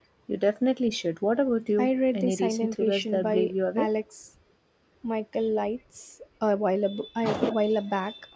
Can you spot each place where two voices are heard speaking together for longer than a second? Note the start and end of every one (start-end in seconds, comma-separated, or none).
1.8-3.9